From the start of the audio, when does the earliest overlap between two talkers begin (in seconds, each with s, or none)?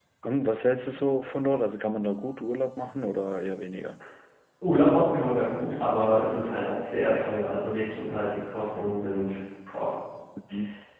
none